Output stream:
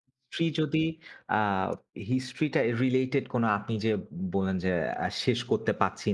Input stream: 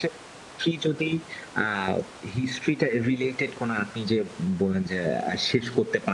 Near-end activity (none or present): none